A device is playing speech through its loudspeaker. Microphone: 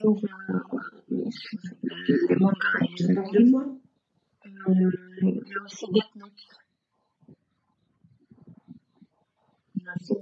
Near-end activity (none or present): present